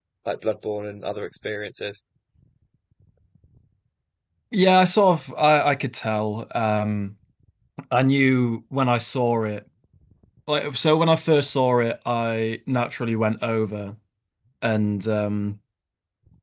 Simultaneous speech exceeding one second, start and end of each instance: none

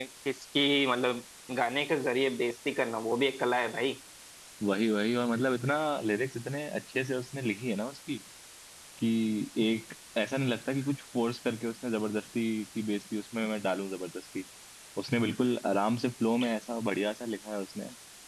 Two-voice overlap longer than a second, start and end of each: none

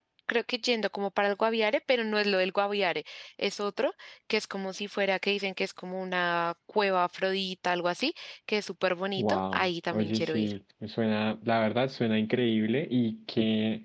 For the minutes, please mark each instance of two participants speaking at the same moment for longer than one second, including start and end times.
9.2-10.5

